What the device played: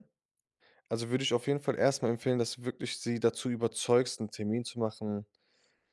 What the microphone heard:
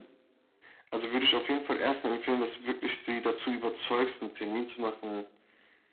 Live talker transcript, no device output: none

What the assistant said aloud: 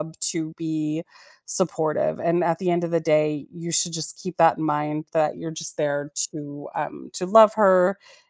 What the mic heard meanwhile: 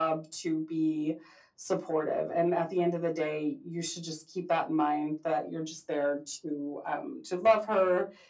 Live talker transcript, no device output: none

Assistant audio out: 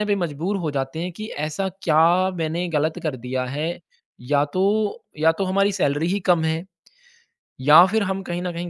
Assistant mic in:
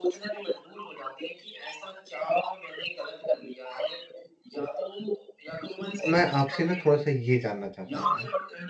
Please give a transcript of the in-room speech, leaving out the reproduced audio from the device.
तो मैं आपसे ना थोड़ा सा ये जानना चाहता हूँ आज

